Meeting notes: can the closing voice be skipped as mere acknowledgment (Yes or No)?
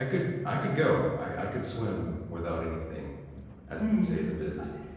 No